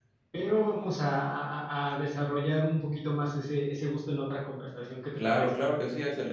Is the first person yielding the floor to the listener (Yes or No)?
Yes